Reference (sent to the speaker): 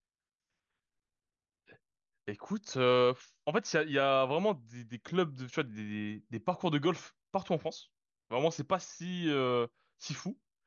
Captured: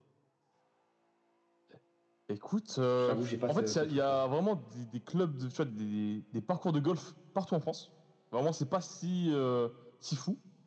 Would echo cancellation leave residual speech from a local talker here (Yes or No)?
Yes